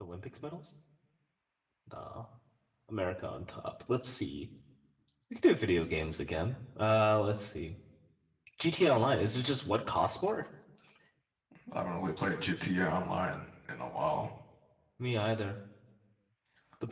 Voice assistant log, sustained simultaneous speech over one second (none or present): none